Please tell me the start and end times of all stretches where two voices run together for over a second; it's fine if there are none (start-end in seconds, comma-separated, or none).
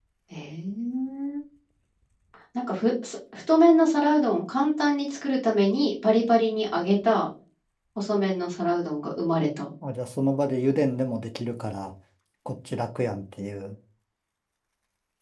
none